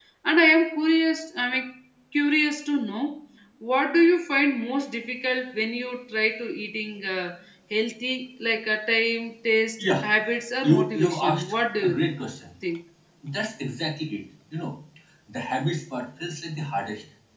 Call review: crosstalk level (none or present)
present